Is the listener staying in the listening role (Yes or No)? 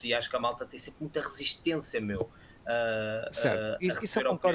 No